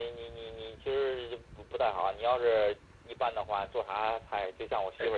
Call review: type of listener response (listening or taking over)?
listening